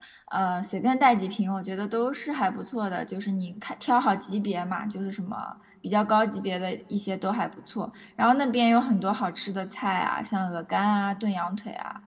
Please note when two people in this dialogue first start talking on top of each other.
none

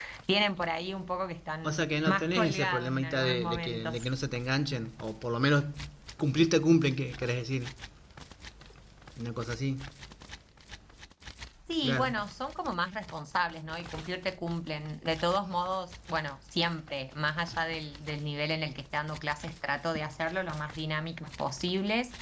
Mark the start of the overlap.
1.6 s

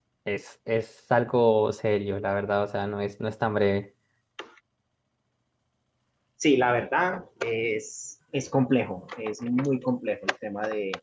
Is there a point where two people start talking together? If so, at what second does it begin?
none

